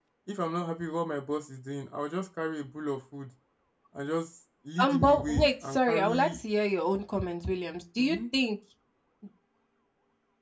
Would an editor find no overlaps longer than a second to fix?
No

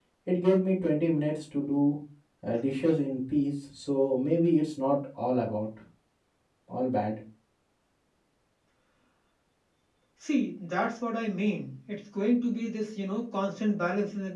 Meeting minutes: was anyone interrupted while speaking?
No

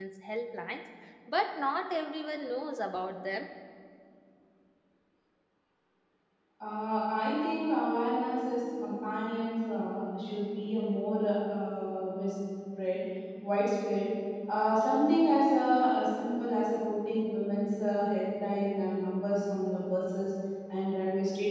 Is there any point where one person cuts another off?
No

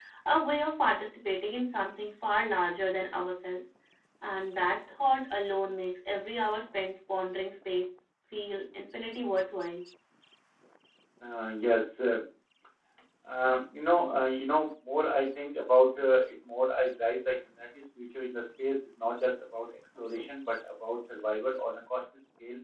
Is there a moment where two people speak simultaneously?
No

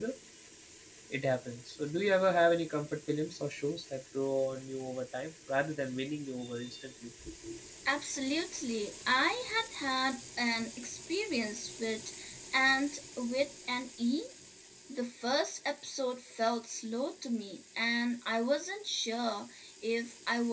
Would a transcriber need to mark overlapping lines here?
No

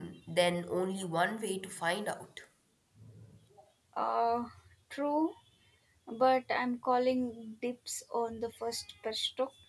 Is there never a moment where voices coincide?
Yes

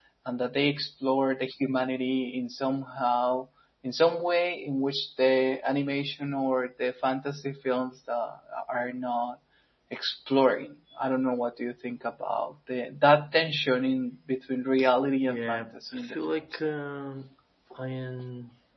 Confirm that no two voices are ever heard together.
No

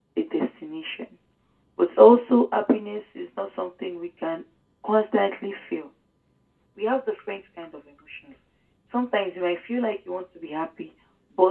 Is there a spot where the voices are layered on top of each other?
No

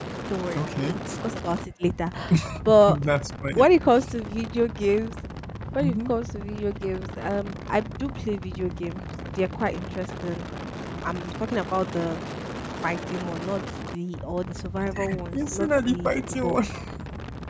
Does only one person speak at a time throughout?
No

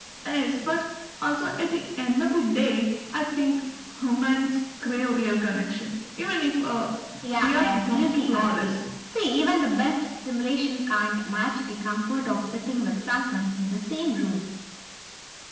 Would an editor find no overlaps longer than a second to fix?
No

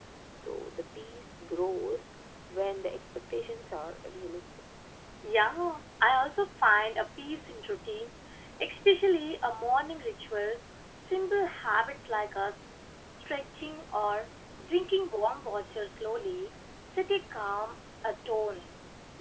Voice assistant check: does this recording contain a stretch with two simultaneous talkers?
No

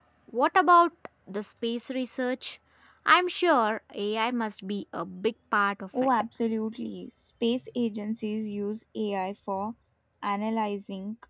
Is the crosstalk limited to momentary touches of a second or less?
Yes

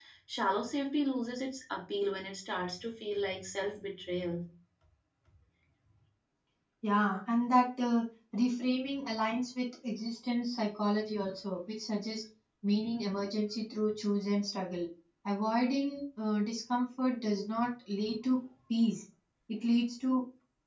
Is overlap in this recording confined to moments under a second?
Yes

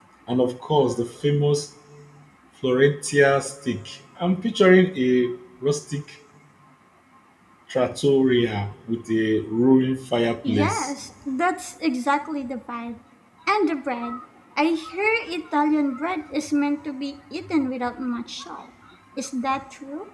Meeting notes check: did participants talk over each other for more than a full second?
No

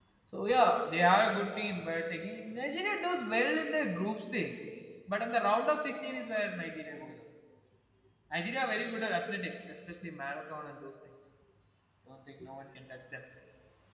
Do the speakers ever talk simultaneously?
No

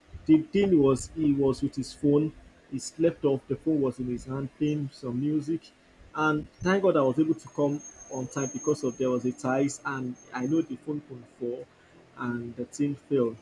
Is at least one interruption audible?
No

